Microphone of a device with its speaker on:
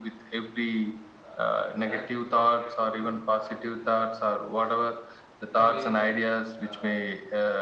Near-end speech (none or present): present